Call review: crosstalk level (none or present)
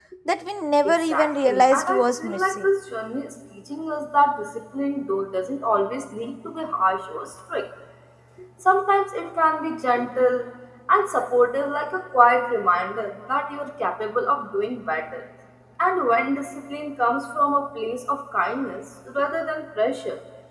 present